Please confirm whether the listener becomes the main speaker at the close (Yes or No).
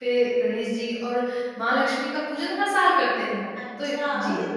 Yes